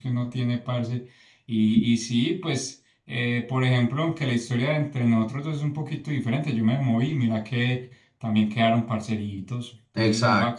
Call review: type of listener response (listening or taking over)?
taking over